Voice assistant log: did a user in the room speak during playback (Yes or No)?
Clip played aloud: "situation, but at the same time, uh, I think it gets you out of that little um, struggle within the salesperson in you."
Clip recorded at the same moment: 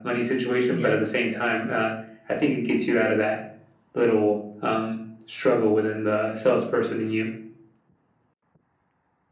Yes